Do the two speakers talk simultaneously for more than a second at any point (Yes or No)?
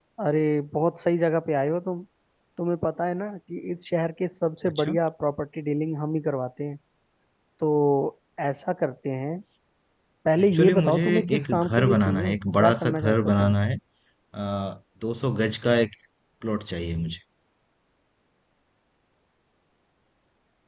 Yes